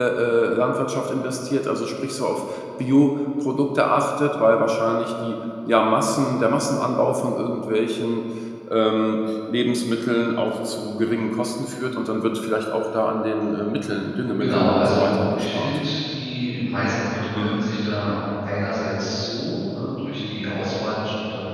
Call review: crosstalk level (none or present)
present